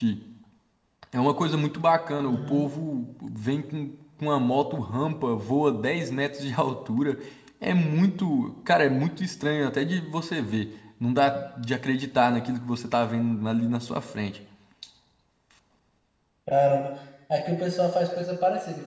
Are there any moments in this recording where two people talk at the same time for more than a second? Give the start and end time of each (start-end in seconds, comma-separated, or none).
none